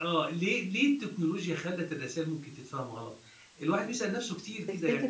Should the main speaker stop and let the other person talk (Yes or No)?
No